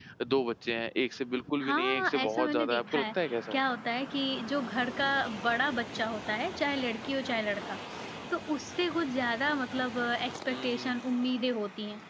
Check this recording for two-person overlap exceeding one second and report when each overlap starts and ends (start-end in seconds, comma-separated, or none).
1.6-3.0